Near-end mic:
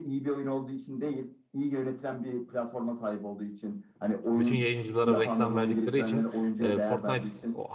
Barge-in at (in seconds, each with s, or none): 4.4 s